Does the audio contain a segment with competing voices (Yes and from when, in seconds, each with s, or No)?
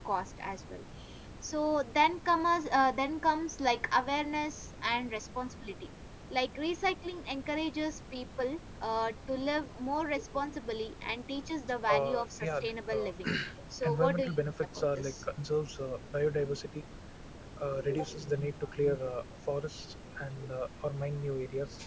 Yes, from 11.8 s